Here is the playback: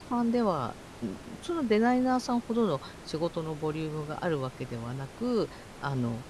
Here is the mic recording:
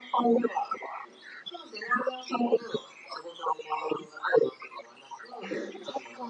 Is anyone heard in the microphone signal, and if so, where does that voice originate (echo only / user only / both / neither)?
both